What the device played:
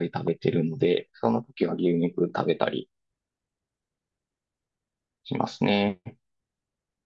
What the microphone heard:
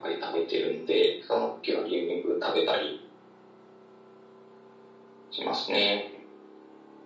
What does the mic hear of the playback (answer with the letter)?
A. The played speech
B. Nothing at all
A